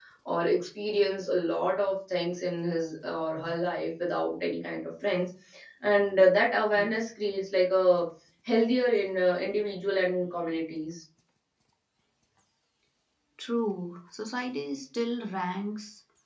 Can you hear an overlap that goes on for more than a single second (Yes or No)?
No